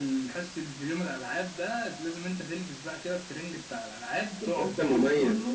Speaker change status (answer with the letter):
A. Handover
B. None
A